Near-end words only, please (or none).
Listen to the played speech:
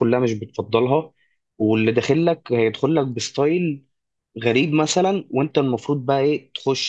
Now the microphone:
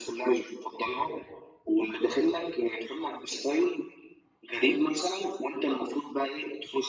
none